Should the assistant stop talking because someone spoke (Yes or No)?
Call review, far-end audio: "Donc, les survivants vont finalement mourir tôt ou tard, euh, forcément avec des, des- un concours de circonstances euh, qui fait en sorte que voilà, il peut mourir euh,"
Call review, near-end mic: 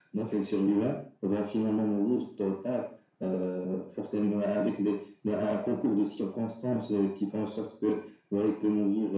No